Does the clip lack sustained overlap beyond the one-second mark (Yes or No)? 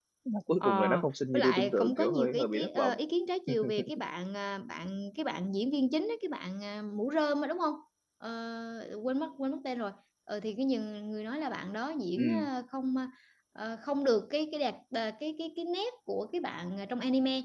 No